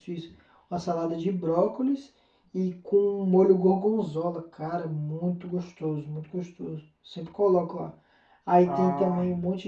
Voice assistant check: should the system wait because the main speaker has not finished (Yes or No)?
Yes